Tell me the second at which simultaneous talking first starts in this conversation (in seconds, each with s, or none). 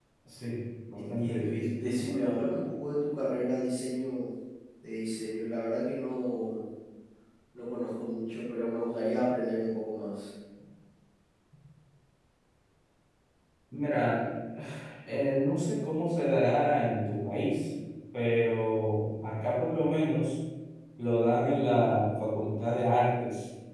0.9 s